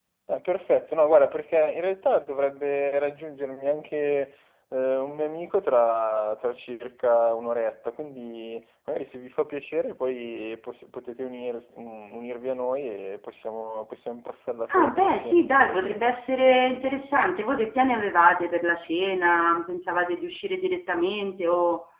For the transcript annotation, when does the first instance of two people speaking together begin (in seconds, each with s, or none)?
14.7 s